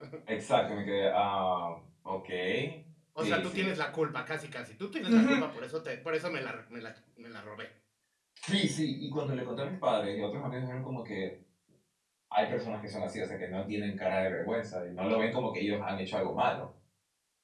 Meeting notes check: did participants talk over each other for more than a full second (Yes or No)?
No